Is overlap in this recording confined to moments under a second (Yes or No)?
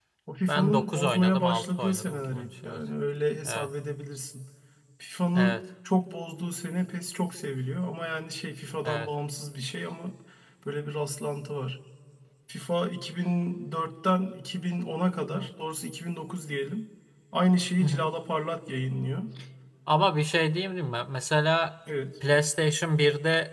No